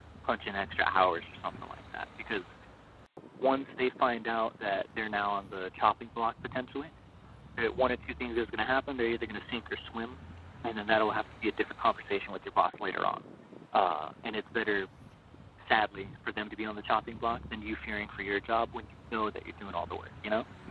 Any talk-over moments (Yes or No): No